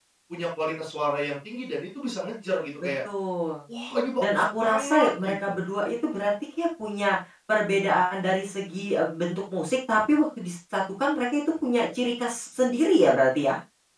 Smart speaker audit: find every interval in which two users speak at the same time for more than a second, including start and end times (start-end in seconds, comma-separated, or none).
4.2-5.5